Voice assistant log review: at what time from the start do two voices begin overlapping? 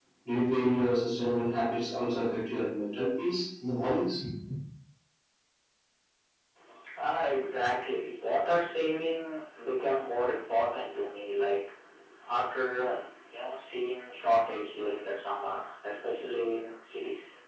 none

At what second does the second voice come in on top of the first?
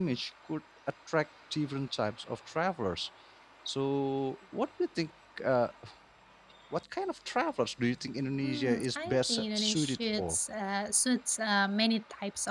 8.4 s

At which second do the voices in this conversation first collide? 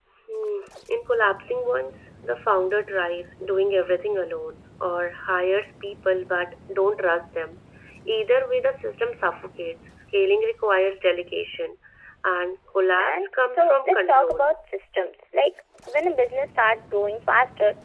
13.0 s

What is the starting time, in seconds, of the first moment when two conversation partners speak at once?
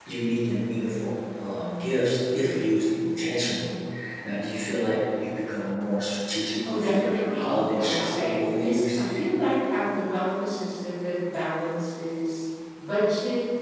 6.7 s

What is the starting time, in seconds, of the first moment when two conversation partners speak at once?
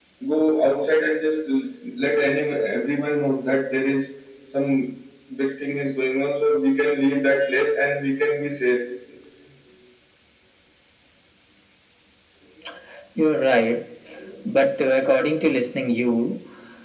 none

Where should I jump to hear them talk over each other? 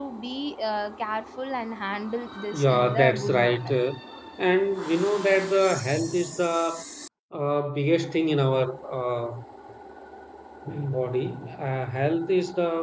2.5 s

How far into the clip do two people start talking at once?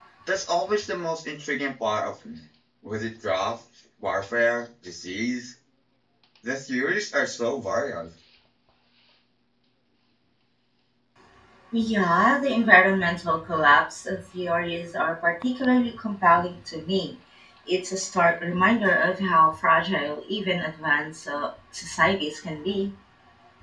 none

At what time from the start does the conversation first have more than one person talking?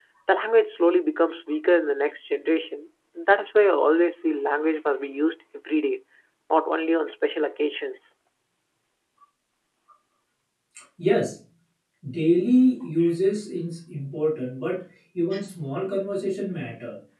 none

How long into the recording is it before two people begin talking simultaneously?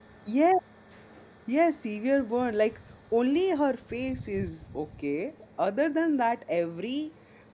none

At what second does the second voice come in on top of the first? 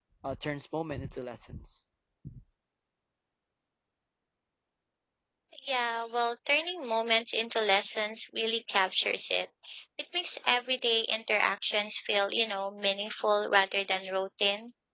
none

